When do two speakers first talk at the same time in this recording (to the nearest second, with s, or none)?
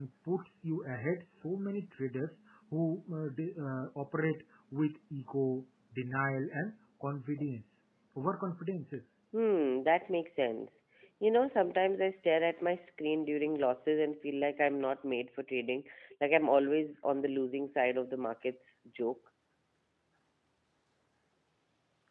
none